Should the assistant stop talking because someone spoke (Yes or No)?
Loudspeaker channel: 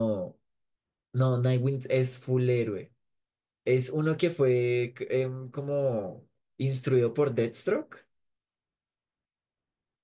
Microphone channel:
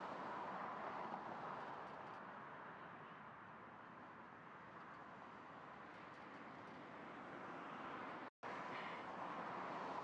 No